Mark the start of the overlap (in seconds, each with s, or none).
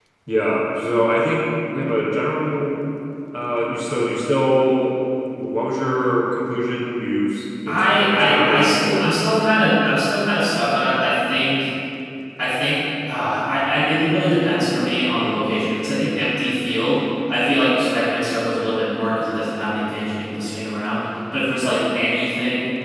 7.7 s